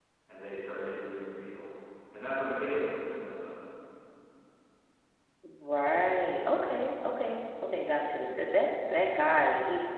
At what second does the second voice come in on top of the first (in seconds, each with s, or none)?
none